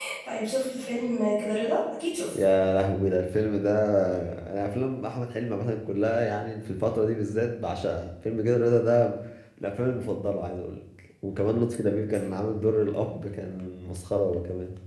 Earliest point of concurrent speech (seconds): none

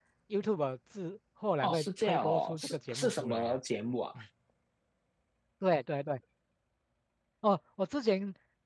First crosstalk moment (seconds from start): 1.6 s

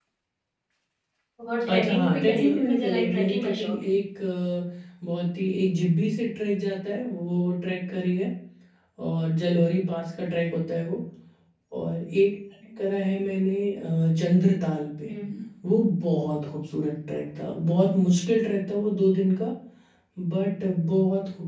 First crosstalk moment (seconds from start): 1.7 s

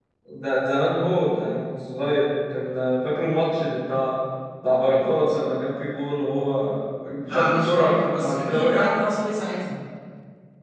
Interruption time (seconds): 7.2 s

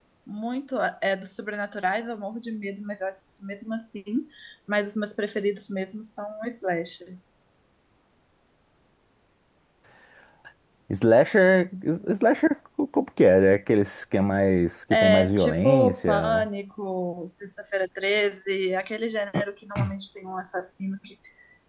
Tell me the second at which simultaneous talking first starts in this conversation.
14.9 s

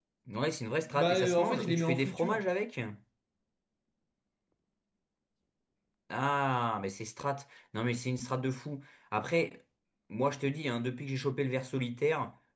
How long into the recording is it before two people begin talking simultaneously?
0.8 s

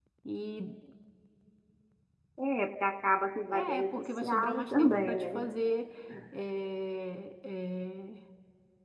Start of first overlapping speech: 3.5 s

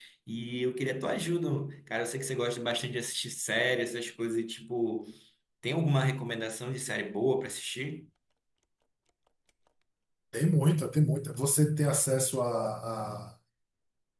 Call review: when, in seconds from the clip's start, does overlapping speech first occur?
none

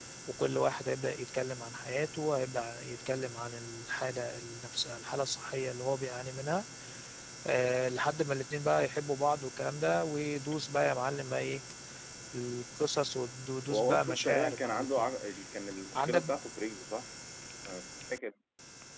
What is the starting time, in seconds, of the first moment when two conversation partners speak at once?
13.7 s

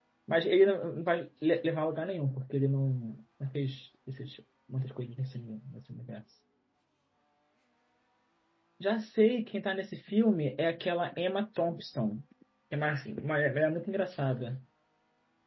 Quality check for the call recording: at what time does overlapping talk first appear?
none

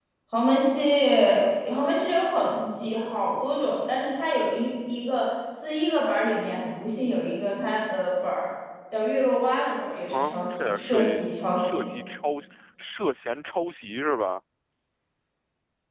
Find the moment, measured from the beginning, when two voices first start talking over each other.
10.1 s

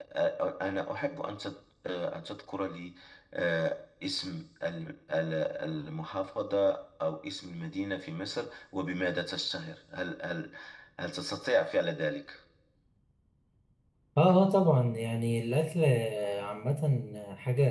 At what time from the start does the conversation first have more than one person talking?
none

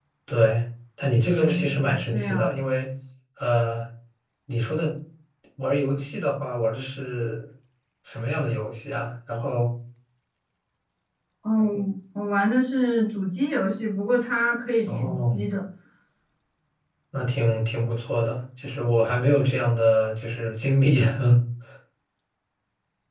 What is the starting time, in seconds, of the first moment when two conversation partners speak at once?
1.3 s

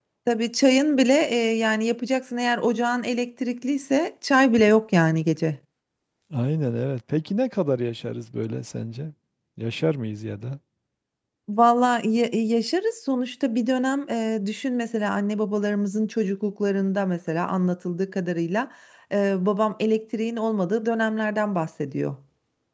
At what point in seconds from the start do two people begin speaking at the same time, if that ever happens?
none

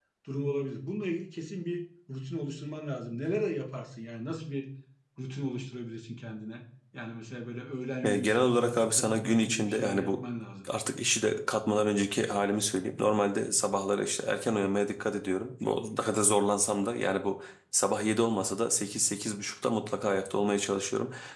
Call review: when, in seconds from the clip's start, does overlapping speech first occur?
8.0 s

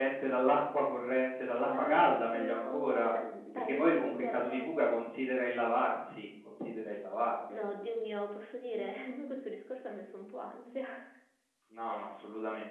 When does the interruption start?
1.5 s

